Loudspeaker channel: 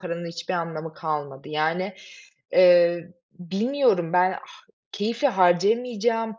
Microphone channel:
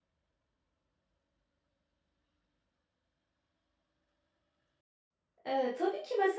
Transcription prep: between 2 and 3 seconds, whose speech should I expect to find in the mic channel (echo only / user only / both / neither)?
neither